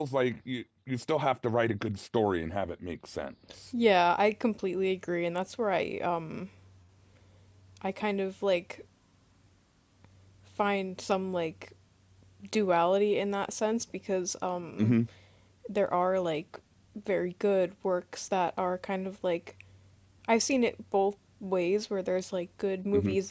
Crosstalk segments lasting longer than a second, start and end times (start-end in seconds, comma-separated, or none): none